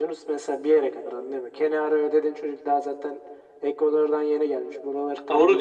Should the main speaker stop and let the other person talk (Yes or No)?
Yes